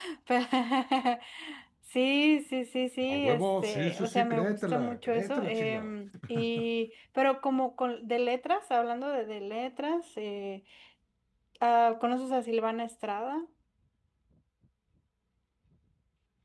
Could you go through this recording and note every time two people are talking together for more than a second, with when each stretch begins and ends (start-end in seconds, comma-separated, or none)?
3.1-5.9